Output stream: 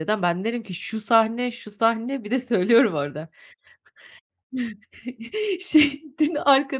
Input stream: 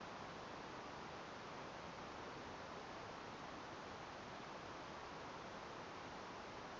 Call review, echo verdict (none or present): none